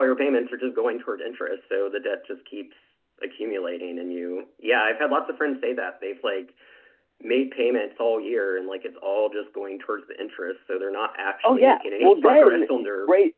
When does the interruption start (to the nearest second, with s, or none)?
11 s